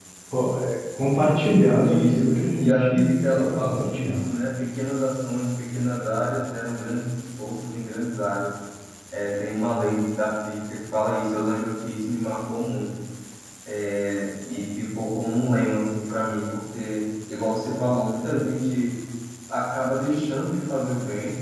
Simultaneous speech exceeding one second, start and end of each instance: 1.8-4.2

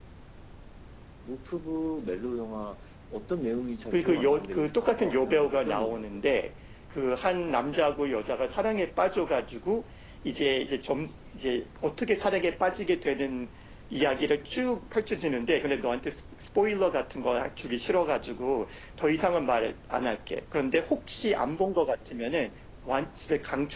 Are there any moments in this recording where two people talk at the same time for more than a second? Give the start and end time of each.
3.9-6.4

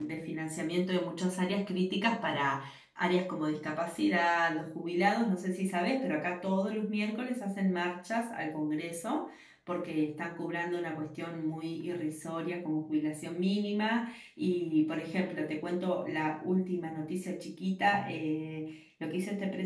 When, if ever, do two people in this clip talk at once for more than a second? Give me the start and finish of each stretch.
none

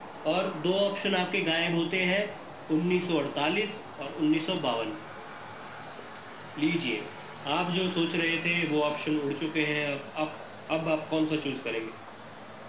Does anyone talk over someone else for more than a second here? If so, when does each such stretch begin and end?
none

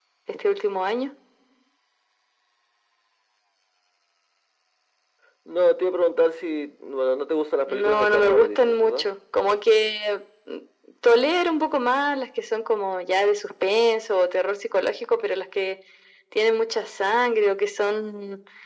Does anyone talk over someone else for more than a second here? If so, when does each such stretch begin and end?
7.7-9.1

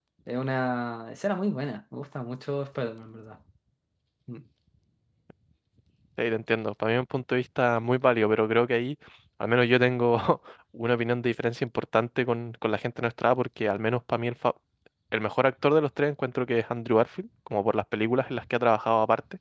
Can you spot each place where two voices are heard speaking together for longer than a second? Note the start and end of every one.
none

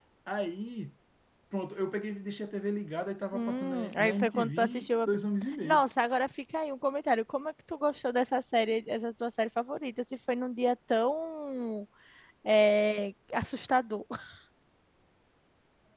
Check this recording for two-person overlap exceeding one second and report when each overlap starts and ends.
3.3-5.2

